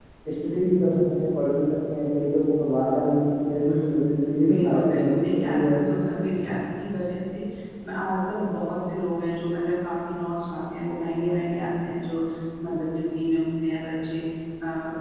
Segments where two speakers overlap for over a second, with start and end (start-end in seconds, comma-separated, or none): 4.4-5.9